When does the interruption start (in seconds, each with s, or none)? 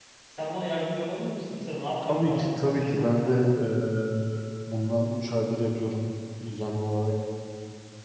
2.0 s